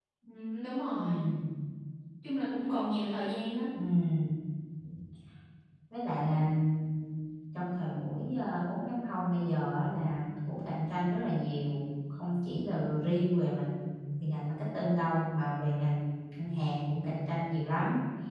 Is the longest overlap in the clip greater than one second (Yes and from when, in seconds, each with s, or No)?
No